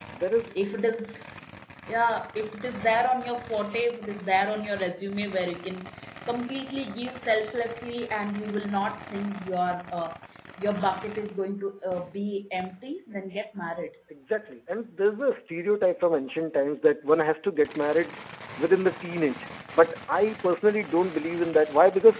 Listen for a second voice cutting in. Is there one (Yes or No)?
No